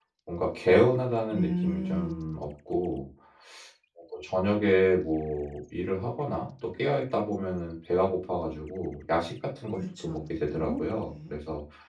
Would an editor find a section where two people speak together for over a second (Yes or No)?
Yes